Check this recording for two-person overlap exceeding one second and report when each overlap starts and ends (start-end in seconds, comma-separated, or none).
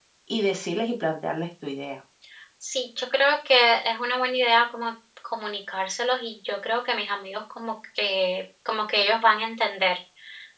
none